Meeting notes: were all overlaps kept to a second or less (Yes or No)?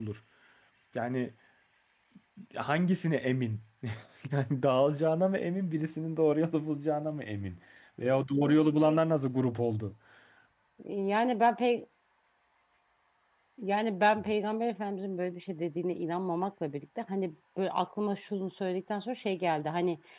Yes